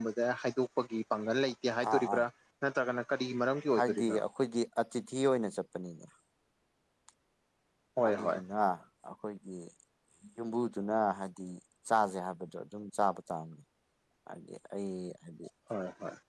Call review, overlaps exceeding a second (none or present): none